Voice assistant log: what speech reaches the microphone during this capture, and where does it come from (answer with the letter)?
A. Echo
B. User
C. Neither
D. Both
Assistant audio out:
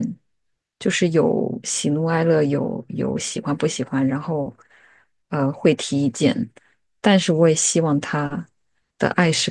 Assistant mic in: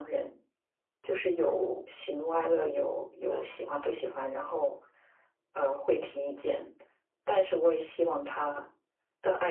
D